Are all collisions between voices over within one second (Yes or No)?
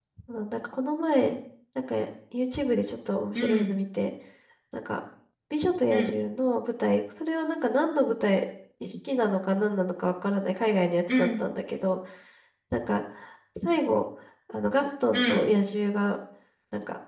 Yes